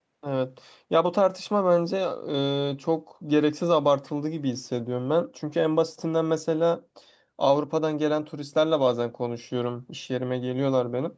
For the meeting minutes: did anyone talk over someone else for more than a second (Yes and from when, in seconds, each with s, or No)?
No